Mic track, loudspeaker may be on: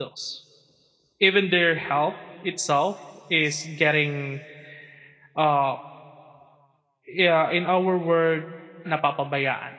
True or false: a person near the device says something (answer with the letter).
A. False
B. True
B